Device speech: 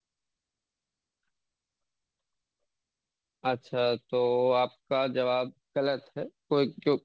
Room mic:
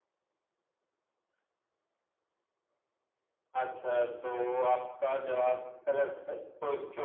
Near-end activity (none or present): none